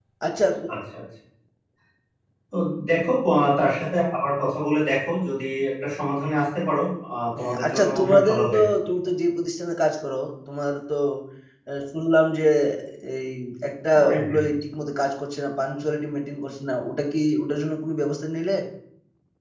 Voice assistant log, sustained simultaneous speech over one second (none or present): present